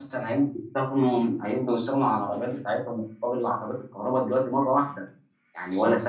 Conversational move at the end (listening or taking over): listening